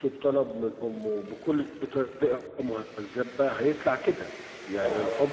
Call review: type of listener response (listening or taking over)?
listening